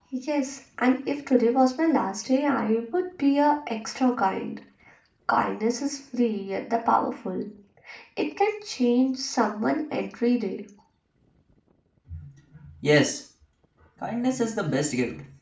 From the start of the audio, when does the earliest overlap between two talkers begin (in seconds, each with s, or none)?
none